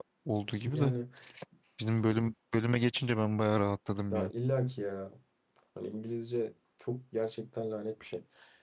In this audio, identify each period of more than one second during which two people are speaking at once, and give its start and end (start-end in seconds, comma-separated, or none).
none